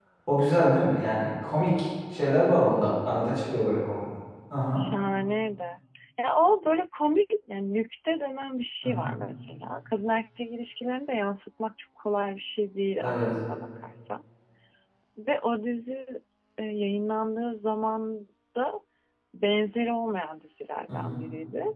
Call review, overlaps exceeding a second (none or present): none